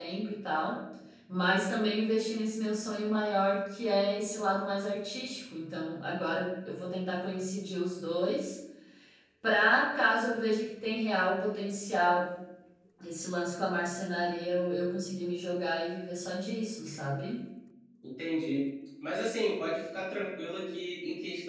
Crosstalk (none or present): none